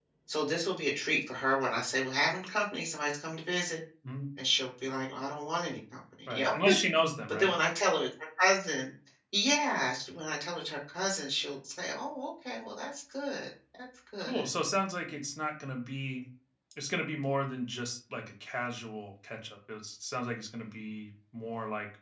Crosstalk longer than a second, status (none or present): none